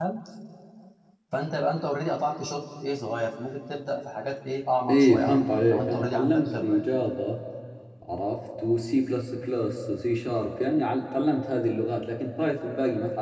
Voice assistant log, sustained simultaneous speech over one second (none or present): present